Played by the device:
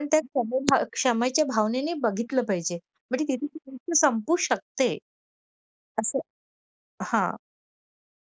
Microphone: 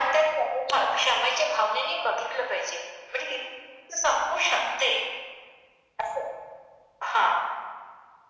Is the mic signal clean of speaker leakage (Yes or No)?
No